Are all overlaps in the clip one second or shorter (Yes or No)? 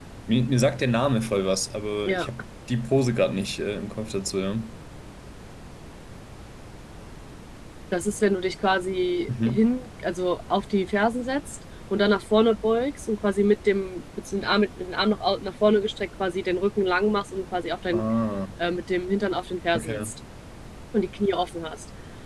Yes